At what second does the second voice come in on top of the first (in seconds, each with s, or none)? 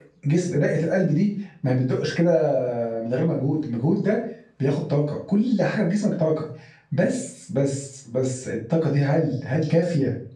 none